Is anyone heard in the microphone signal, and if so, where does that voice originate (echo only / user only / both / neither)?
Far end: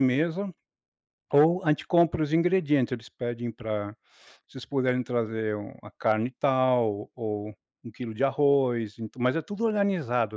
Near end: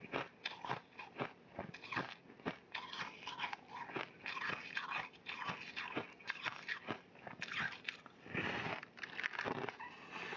neither